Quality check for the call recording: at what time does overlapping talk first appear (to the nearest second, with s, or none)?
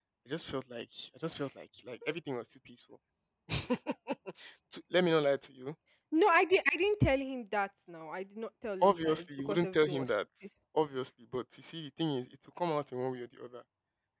9 s